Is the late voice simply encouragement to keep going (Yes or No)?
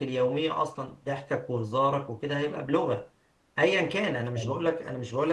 Yes